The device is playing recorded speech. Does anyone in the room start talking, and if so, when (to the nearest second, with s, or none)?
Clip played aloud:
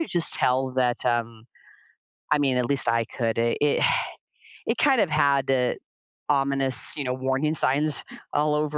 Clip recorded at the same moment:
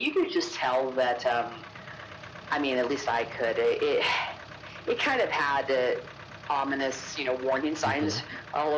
8 s